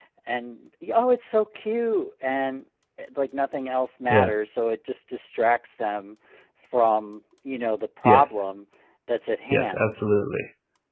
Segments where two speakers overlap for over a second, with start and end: none

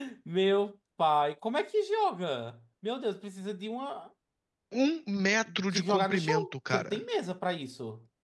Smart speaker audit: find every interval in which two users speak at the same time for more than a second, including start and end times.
5.7-7.0

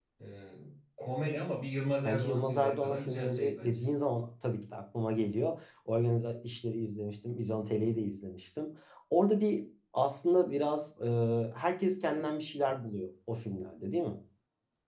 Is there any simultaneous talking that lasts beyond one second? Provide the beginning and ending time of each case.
2.0-3.9

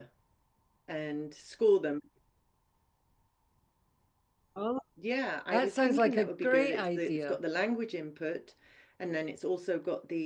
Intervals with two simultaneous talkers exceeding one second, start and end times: 5.5-7.4

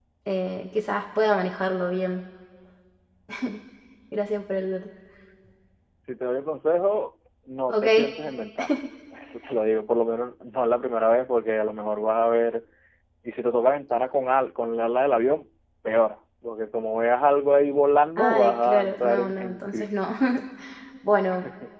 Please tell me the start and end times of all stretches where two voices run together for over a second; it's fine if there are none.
18.2-19.9

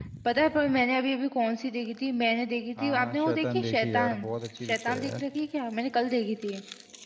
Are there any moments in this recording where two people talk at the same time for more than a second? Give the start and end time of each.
2.8-4.3

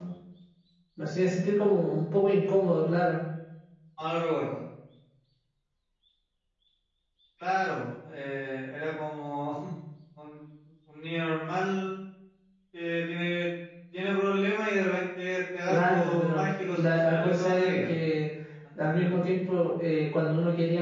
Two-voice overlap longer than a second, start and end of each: 15.7-17.9

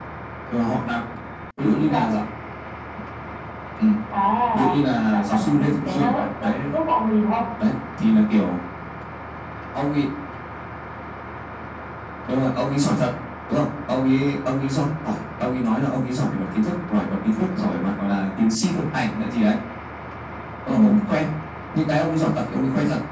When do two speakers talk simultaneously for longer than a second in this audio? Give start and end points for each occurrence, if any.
5.1-6.5

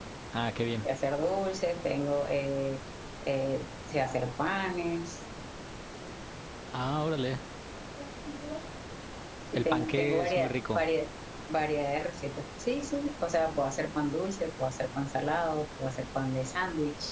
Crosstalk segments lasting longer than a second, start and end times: 9.6-10.9

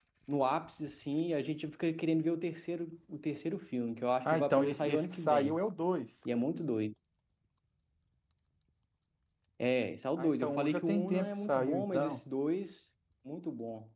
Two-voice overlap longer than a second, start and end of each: 4.2-5.6, 10.2-12.2

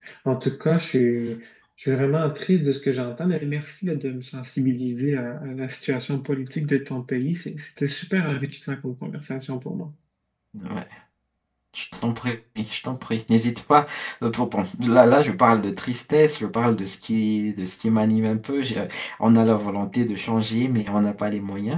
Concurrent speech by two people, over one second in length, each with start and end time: none

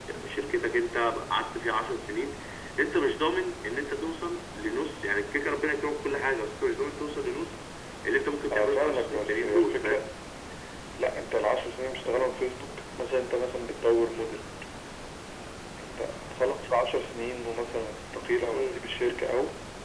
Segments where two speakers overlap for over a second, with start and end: 8.5-10.0

